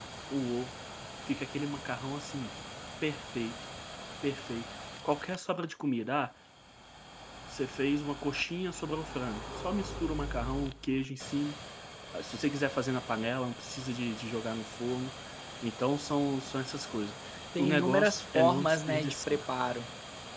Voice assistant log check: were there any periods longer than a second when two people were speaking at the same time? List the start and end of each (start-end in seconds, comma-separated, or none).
17.6-19.5